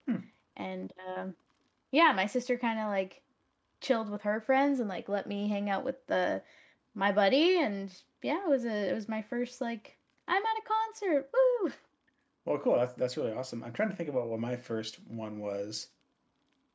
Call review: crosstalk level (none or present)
none